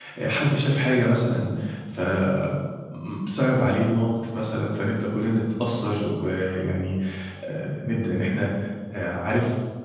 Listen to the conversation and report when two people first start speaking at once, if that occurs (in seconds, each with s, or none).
none